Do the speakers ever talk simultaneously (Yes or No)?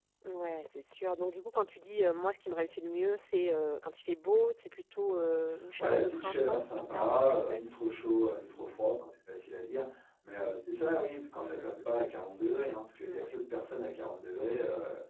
Yes